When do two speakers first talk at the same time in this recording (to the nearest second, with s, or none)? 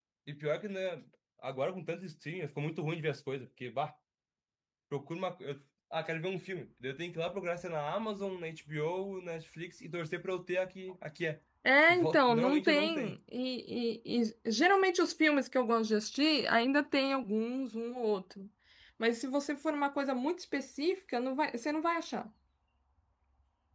12 s